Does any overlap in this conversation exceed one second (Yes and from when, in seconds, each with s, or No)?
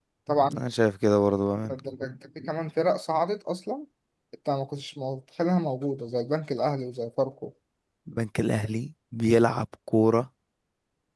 No